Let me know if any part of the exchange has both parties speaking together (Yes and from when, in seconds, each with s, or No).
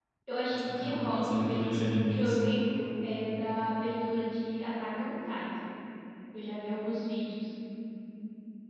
Yes, from 0.5 s